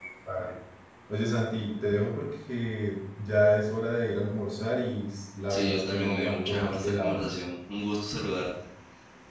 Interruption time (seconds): 5.5 s

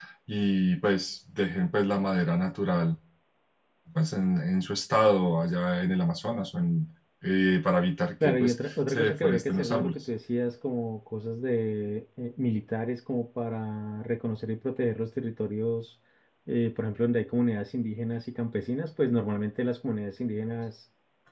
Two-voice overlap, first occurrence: 8.2 s

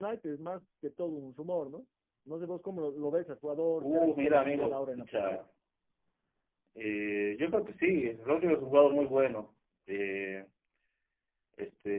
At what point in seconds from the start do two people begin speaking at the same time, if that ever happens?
3.8 s

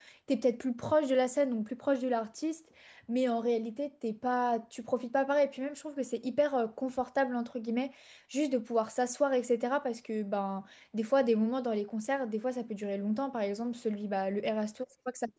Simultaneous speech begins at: none

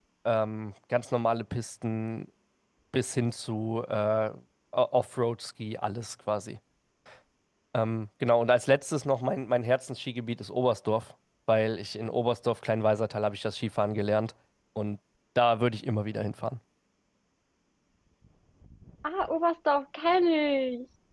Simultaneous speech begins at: none

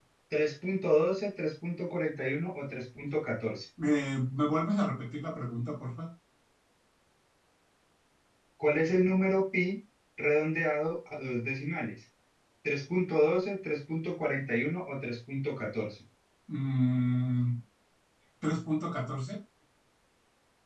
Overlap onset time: none

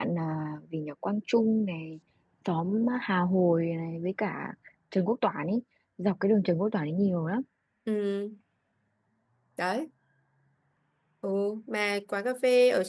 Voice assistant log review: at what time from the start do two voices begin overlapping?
none

